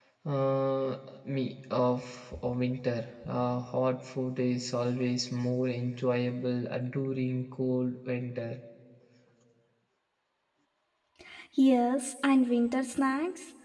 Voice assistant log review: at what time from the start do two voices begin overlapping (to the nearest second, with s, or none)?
none